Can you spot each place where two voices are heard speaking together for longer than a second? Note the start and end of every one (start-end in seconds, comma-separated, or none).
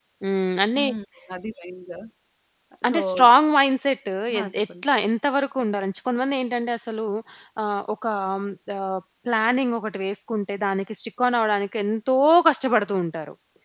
none